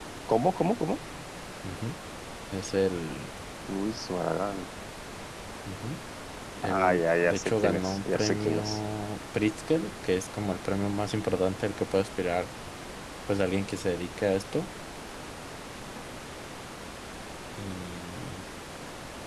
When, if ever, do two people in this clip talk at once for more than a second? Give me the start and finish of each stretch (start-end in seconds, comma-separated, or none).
6.6-8.8